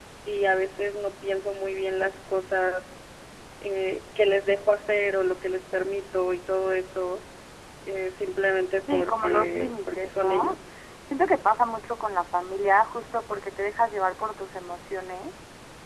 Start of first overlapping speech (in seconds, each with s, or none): 8.9 s